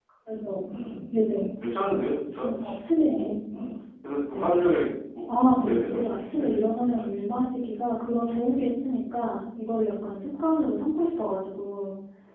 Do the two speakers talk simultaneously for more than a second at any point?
Yes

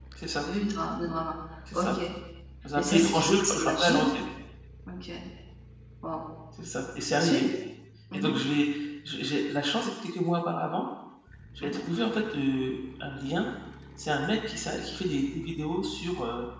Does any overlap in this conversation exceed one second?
Yes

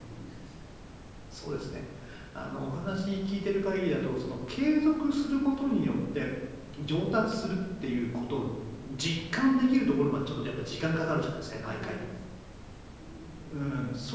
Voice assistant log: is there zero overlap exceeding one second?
Yes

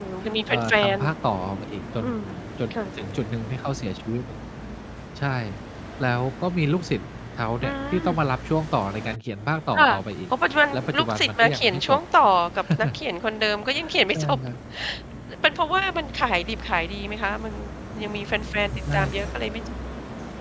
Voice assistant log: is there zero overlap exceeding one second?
No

